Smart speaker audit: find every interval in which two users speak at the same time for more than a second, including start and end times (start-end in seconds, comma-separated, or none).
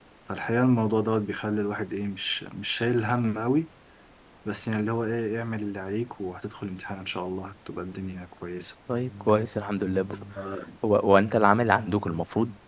none